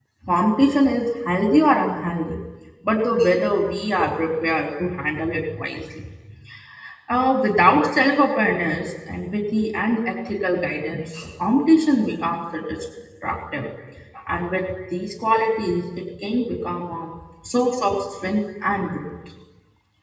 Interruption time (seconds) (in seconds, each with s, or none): none